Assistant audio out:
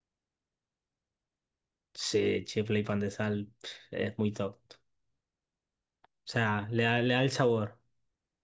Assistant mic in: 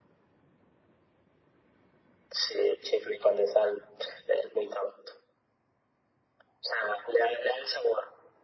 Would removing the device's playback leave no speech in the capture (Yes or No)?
Yes